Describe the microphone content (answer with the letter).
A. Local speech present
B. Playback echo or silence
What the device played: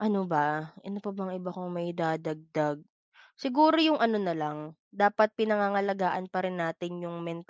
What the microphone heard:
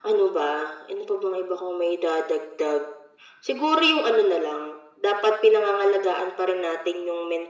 B